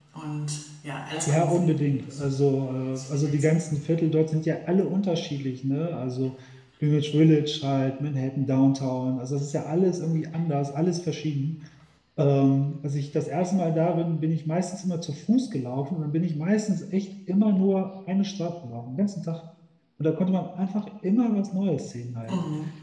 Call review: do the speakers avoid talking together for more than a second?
Yes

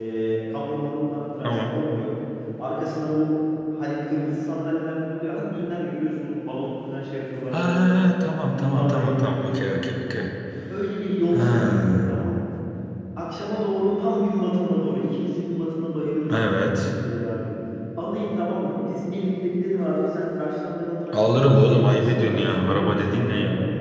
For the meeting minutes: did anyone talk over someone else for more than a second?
Yes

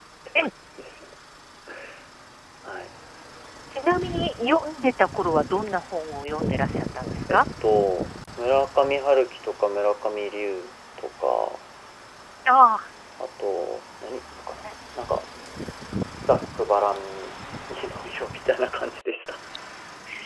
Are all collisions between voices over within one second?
Yes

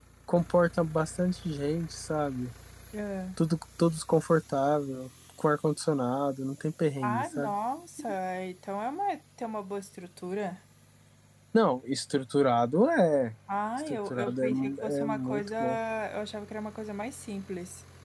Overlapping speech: Yes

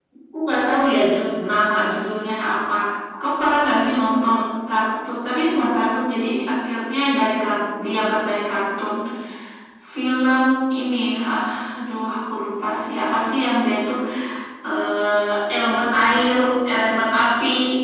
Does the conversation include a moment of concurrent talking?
No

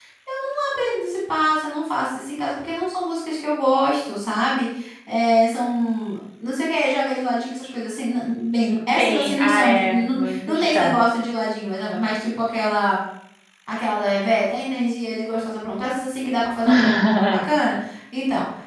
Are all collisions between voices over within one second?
No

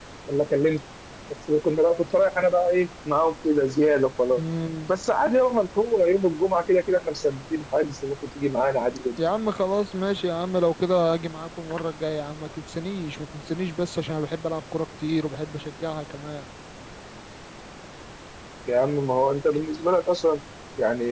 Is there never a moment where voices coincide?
Yes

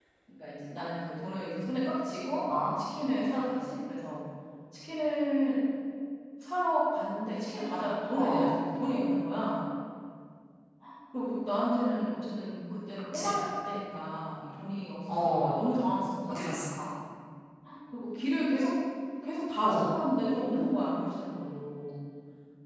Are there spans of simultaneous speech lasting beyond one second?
No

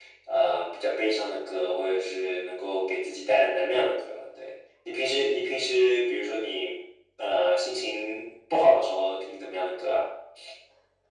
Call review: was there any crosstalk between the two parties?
No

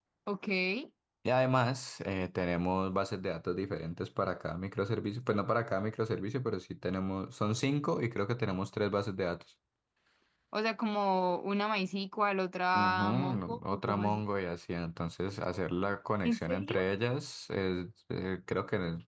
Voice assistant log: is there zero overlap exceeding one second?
No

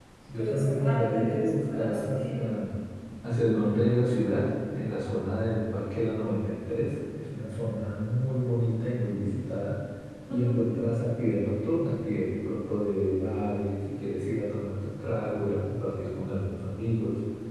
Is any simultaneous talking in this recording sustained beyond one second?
Yes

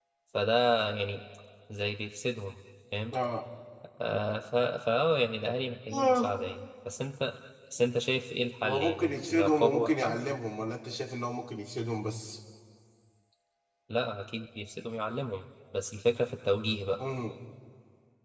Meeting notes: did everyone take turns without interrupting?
No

